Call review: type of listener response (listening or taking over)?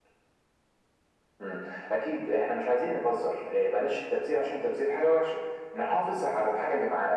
listening